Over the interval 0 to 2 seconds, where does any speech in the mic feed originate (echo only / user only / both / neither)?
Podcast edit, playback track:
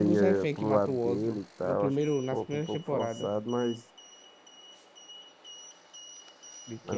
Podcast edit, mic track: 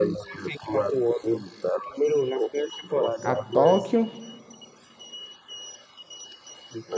echo only